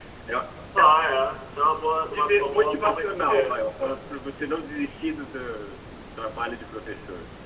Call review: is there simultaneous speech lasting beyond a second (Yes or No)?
Yes